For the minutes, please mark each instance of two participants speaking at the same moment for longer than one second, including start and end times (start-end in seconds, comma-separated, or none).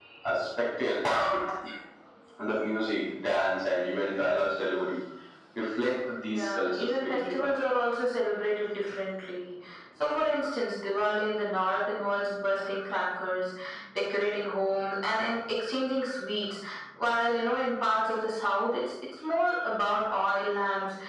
6.3-7.5